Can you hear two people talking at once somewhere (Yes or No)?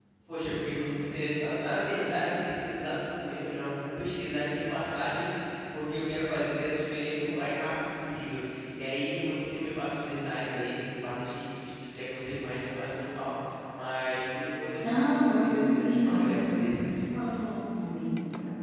Yes